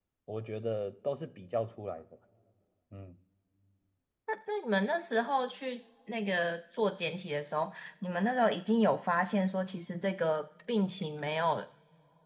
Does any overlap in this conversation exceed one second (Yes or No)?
No